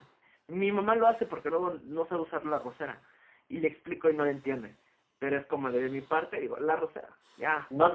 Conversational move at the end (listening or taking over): taking over